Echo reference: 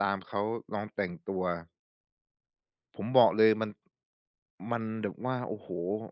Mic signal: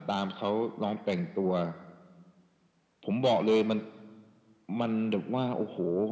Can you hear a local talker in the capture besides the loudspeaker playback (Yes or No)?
No